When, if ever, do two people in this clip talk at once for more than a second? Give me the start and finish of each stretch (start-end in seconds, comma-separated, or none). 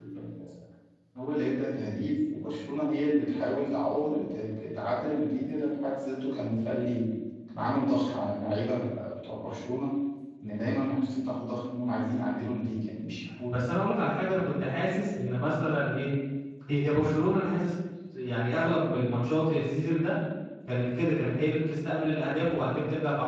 none